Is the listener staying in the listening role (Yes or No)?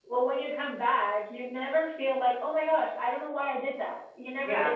No